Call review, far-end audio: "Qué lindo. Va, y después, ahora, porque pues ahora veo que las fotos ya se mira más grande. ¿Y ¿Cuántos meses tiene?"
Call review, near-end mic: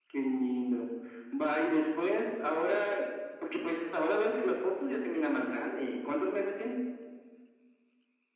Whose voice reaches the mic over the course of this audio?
echo only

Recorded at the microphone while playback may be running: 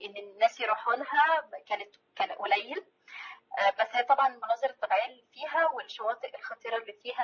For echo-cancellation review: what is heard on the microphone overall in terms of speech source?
echo only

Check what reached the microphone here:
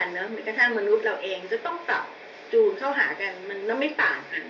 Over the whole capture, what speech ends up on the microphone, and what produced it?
echo only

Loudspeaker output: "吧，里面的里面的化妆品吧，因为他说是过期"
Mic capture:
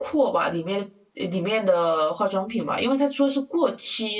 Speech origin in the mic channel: echo only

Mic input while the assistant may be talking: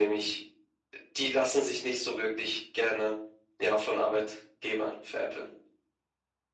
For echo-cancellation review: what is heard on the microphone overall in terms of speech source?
echo only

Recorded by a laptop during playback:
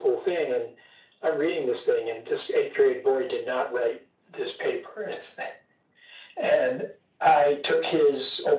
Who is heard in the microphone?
echo only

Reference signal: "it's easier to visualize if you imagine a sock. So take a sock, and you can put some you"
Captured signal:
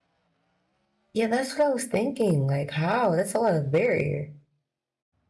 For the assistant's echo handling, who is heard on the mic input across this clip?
user only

